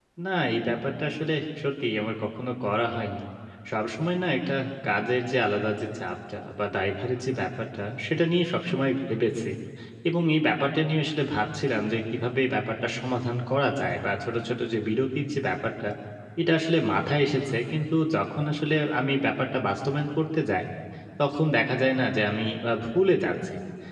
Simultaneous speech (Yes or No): No